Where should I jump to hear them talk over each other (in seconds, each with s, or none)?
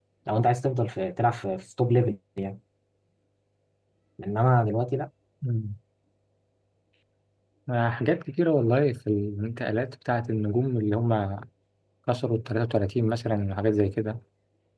none